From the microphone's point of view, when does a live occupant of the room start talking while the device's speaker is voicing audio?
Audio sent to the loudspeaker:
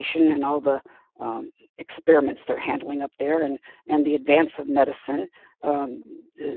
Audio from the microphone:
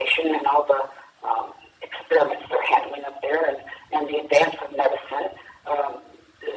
none

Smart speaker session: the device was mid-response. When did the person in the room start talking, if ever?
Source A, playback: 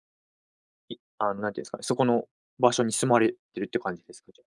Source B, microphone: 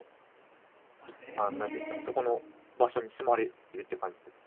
0.9 s

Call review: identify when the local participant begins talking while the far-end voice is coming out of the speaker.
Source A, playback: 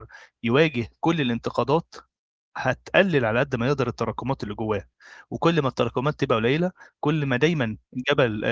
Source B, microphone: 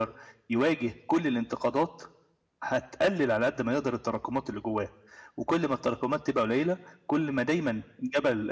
none

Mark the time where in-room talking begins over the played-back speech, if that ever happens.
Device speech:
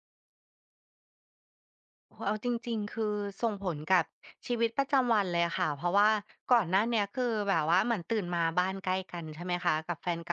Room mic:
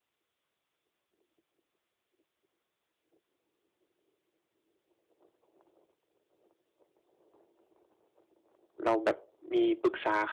8.8 s

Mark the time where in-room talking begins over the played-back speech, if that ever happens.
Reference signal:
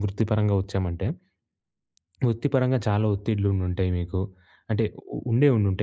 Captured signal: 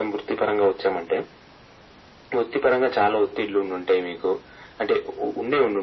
none

